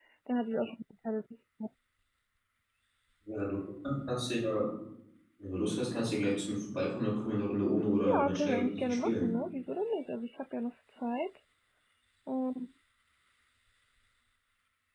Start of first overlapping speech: 8 s

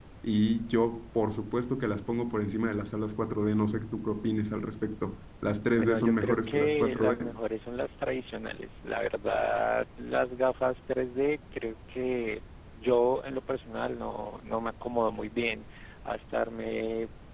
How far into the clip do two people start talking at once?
6 s

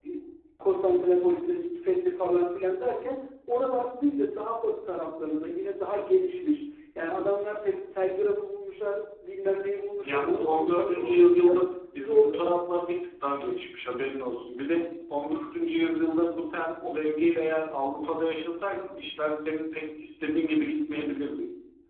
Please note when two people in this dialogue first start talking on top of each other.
10 s

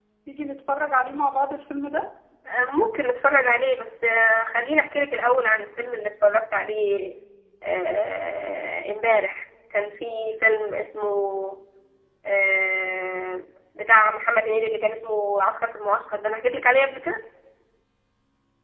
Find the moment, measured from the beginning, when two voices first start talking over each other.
none

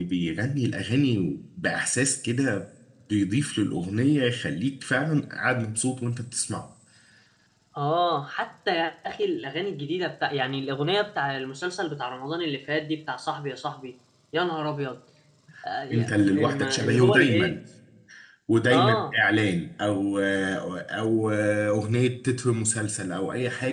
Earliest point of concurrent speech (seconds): 16 s

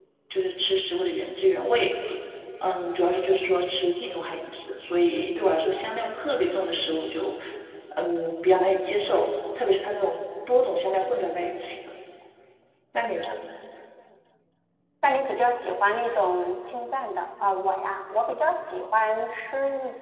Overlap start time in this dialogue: none

